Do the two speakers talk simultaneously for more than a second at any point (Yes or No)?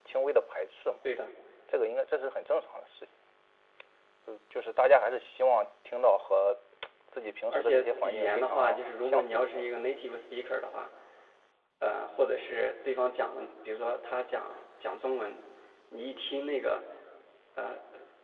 Yes